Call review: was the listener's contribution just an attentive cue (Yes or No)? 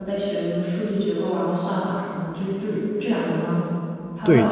No